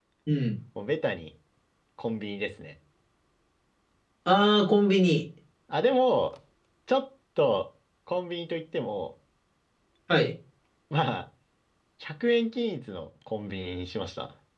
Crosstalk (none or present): none